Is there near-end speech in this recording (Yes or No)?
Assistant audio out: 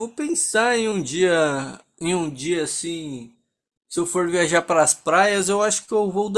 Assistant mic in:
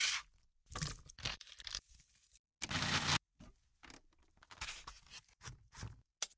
No